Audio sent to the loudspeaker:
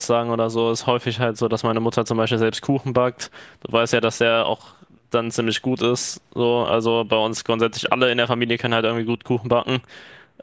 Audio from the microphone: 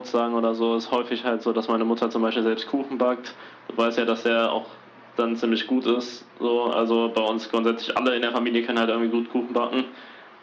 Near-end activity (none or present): none